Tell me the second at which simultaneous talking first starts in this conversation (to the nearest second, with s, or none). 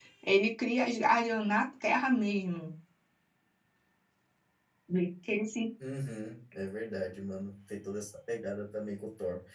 none